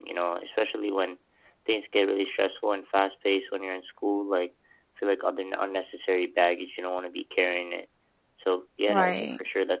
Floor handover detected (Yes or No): No